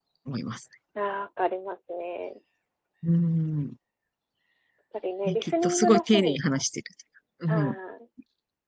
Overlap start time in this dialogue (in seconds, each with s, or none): 5.2 s